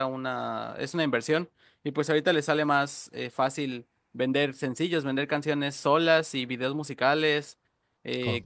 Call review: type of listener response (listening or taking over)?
listening